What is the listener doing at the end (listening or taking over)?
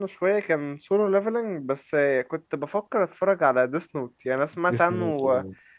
listening